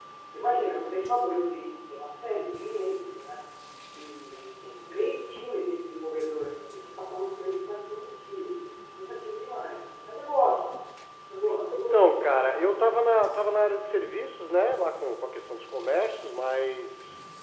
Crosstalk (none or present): present